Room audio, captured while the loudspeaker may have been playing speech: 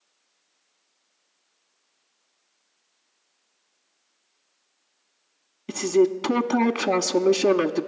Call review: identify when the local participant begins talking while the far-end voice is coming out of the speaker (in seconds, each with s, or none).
5.7 s